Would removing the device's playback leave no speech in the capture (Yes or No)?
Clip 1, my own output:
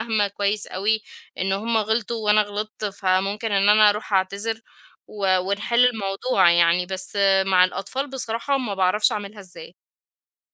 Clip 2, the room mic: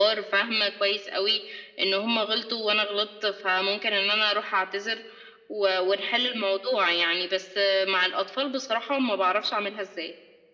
Yes